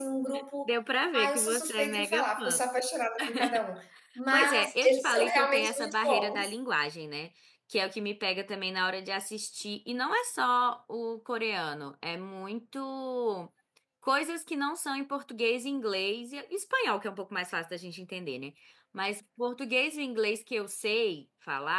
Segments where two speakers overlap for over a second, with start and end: 1.1-2.6, 4.3-6.5

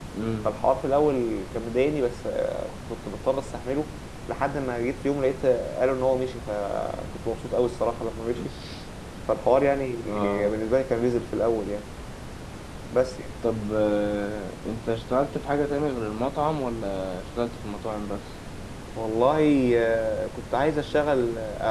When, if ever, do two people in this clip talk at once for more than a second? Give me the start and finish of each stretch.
none

